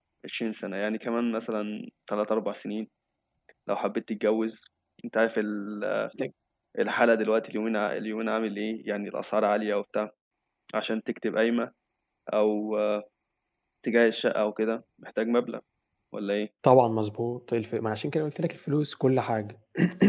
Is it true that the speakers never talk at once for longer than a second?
Yes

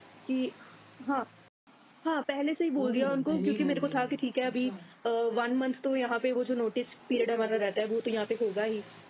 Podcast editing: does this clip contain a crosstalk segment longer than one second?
Yes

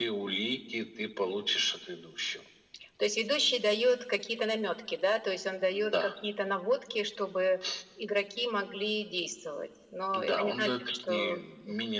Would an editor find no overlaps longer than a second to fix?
No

